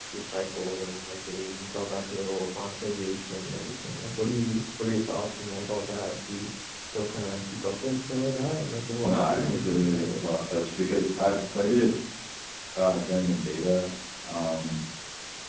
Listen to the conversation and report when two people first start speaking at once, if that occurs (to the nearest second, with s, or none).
9 s